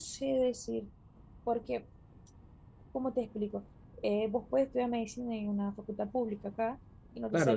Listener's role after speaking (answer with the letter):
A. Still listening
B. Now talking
B